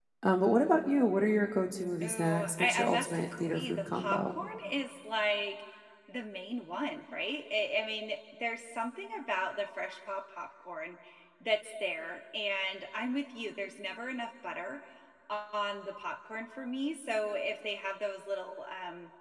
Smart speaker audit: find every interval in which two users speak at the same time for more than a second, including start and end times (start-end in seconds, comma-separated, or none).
2.0-4.4